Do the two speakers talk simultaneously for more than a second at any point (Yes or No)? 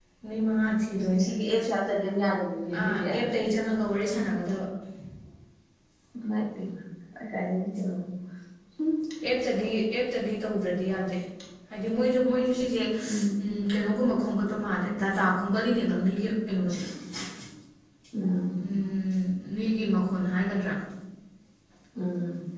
No